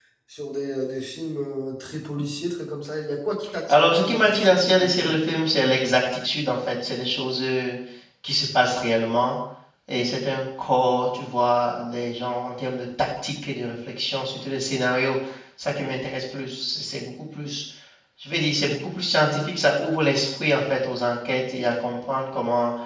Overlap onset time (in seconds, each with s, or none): 3.7 s